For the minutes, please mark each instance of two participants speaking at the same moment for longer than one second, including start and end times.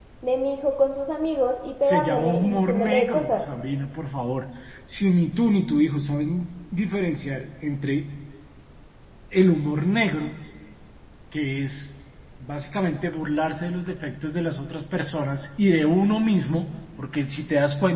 1.8-3.4

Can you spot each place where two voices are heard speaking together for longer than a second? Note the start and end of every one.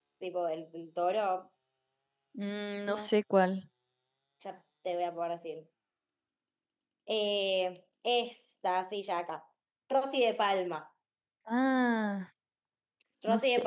none

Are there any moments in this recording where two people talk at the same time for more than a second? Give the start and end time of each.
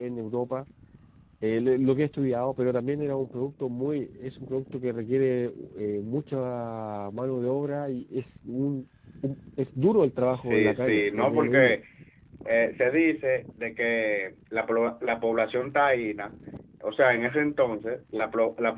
10.3-11.8

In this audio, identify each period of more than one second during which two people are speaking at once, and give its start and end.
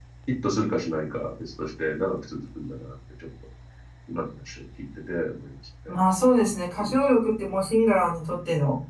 none

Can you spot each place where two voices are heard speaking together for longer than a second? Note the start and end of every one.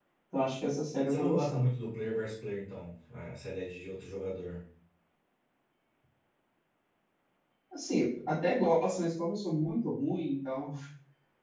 none

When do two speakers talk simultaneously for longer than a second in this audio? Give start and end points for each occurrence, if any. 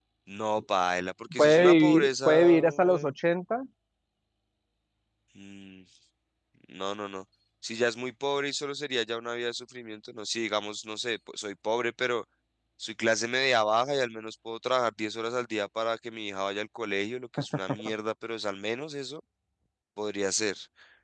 1.4-3.1

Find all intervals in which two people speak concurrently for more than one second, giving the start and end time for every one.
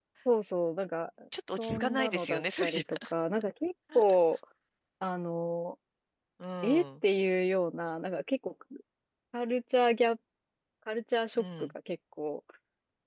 1.6-3.1

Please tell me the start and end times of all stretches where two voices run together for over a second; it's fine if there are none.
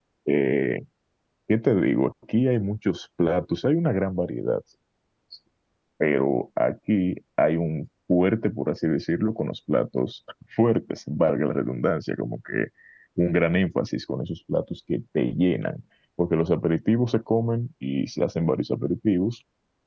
none

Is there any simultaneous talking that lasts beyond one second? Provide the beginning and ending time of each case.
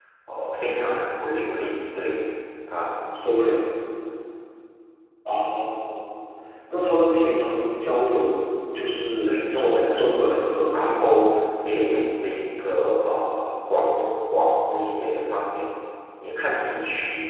9.3-11.1

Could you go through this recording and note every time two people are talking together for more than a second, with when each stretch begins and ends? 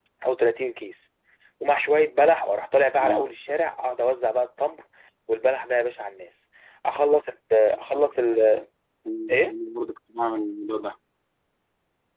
none

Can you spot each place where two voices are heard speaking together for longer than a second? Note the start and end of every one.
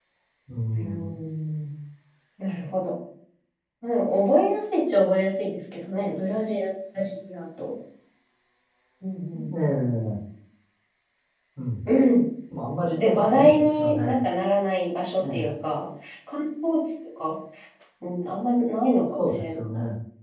12.8-14.2

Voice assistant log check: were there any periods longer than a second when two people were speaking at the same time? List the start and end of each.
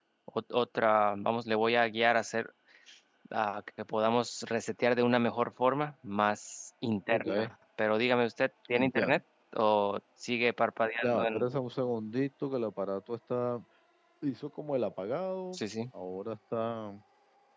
none

